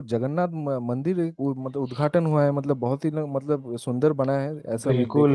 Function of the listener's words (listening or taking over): taking over